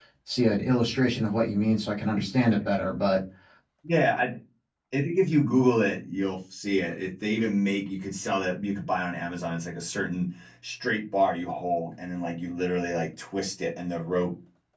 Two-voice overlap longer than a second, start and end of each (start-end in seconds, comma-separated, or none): none